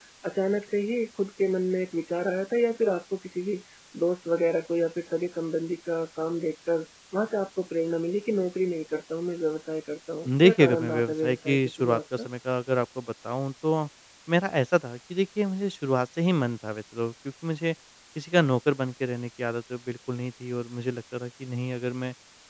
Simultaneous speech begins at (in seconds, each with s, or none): 10.2 s